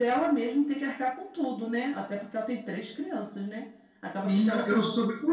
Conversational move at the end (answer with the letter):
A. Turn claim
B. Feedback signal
A